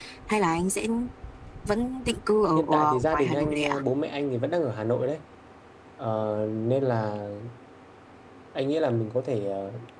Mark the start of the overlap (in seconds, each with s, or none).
2.5 s